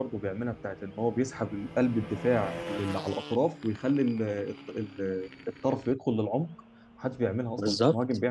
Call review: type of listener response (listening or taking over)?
taking over